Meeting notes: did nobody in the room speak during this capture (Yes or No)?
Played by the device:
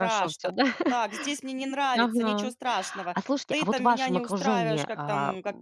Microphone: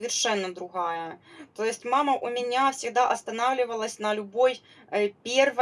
No